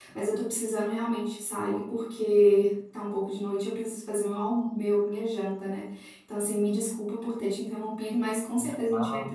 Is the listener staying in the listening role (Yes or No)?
Yes